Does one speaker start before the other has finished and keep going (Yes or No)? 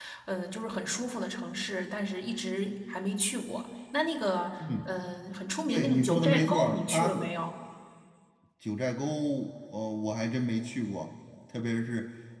Yes